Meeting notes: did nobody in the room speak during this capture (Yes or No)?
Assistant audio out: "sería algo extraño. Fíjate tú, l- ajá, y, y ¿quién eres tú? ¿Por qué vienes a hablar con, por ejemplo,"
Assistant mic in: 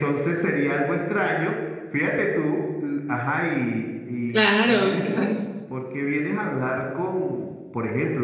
No